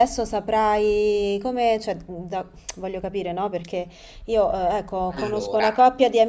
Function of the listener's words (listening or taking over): listening